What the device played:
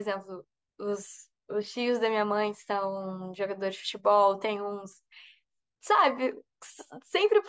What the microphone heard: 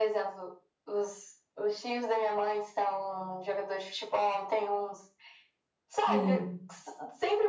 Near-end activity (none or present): present